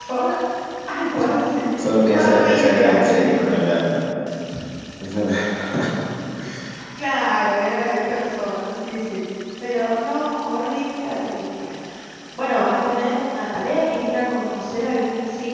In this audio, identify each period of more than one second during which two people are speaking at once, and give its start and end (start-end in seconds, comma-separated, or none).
2.1-3.6